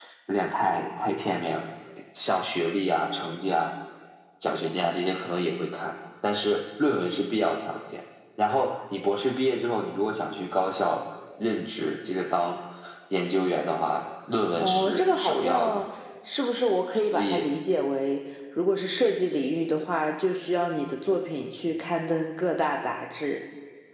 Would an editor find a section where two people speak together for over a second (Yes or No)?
Yes